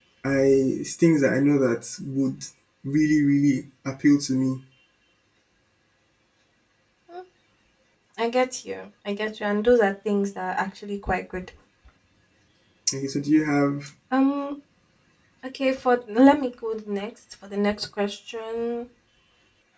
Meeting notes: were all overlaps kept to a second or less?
Yes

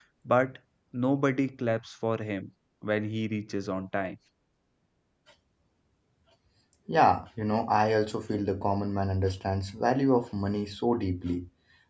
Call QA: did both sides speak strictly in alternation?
Yes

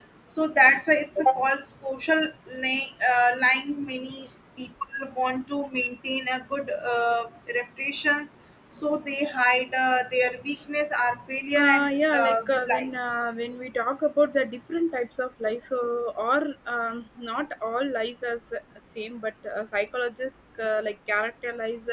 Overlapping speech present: Yes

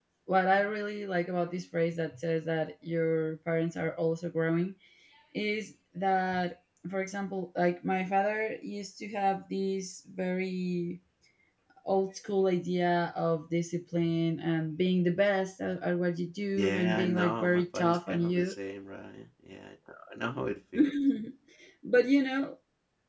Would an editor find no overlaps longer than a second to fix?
No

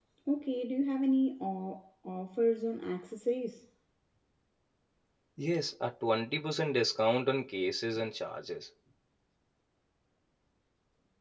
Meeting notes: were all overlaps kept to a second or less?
Yes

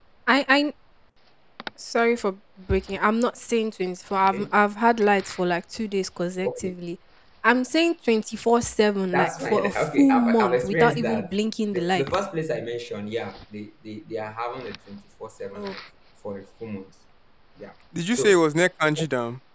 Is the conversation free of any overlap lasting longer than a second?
No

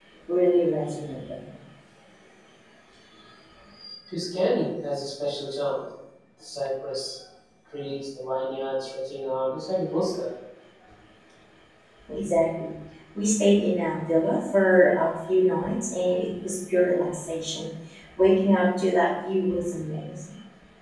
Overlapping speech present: No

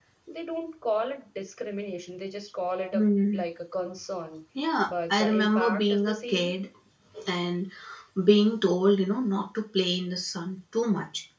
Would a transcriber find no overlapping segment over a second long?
No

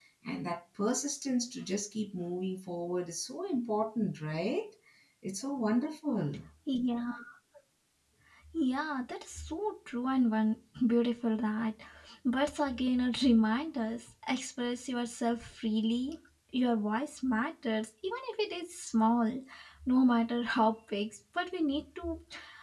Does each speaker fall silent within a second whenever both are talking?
Yes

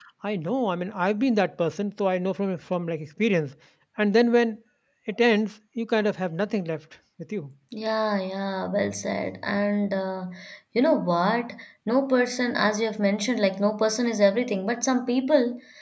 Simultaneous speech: No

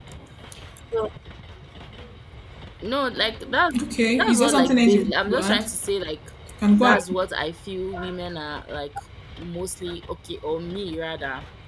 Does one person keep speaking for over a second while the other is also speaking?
Yes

